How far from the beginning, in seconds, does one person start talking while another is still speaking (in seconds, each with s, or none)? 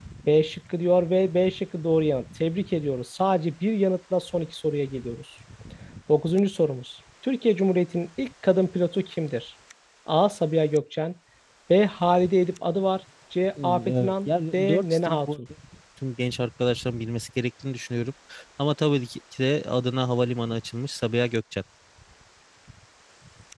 13.6 s